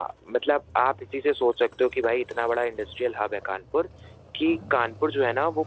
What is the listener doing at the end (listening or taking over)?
listening